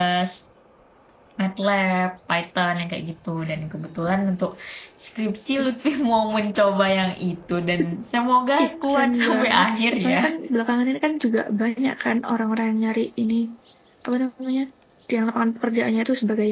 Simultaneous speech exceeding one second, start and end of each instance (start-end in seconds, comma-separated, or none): 8.6-10.2